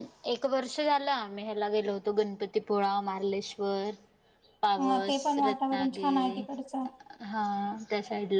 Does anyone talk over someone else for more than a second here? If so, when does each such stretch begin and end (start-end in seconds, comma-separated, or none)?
4.8-6.4